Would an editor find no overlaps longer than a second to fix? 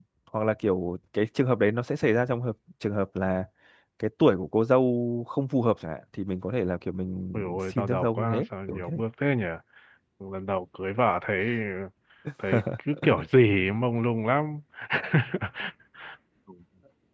No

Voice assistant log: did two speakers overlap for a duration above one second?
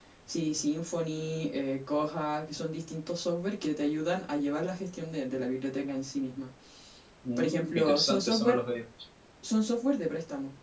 Yes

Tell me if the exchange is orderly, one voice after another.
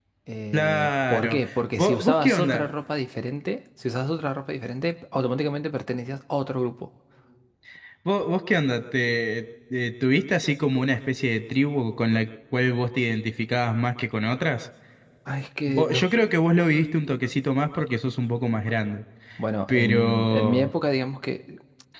No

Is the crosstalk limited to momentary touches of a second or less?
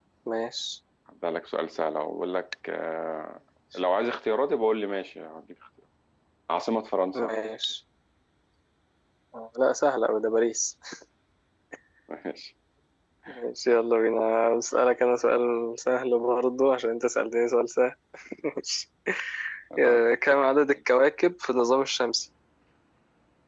Yes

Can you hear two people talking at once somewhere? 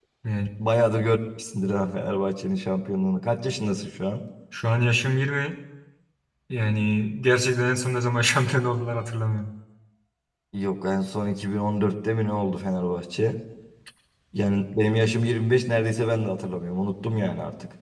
No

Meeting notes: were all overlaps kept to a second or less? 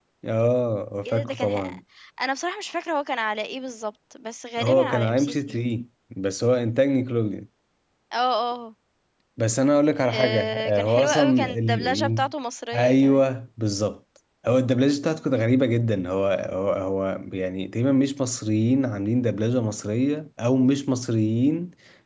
No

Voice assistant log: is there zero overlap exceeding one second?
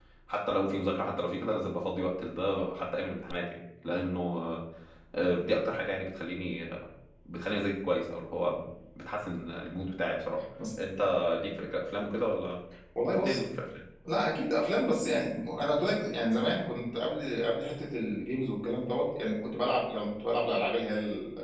Yes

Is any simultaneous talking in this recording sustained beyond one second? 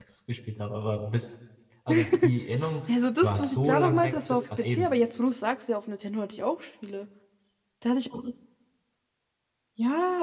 Yes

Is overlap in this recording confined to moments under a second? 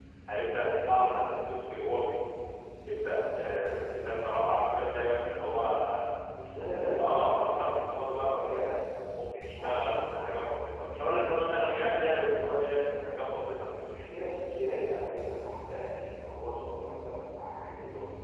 No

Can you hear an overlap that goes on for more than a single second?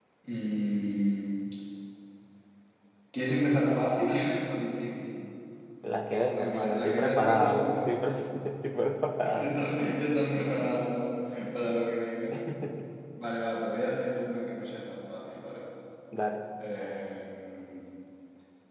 Yes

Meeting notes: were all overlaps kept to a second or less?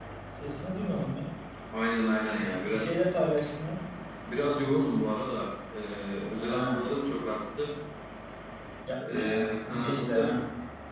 No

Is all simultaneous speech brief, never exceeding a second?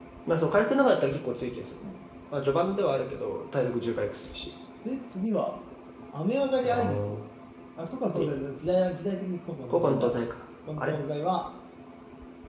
Yes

